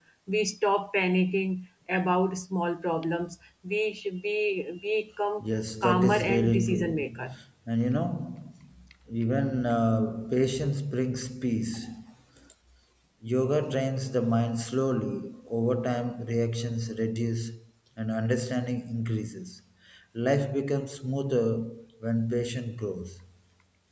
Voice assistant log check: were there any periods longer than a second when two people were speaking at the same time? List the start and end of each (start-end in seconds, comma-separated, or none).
5.8-7.2